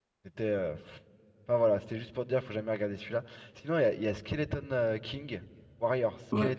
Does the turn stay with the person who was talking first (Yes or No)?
No